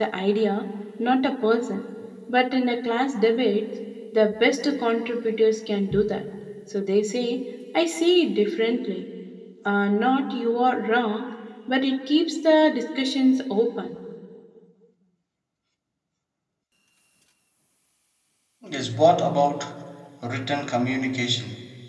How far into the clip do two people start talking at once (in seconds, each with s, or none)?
none